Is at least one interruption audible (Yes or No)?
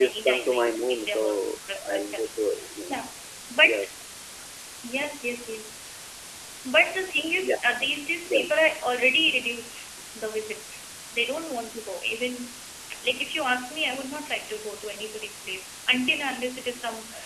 Yes